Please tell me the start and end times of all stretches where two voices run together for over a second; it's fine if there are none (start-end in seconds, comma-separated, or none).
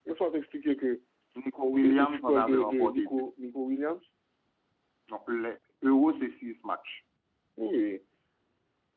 1.8-3.1